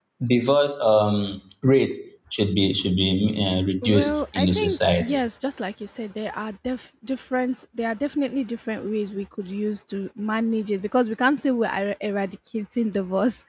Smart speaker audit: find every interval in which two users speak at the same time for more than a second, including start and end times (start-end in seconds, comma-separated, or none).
3.8-5.2